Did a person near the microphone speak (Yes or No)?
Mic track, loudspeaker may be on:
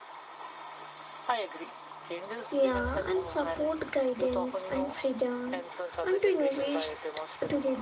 Yes